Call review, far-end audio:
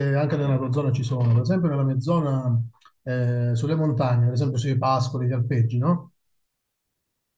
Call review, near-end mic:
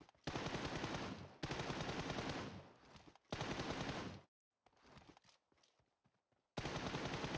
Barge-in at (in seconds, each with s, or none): none